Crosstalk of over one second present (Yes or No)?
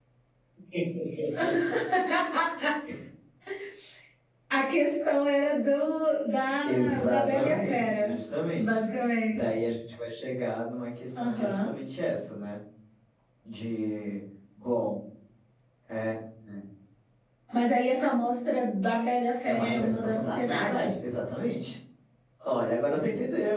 Yes